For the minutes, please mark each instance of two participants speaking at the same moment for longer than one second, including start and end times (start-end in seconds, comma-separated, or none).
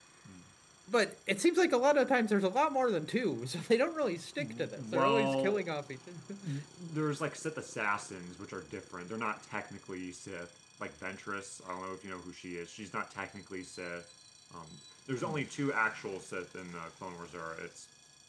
4.4-5.7